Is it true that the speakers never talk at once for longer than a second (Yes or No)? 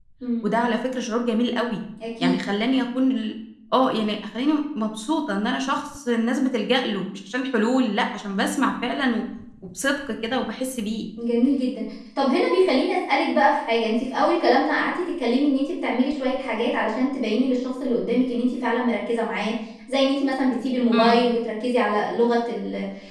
Yes